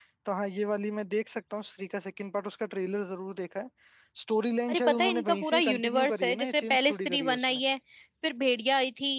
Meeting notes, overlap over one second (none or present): present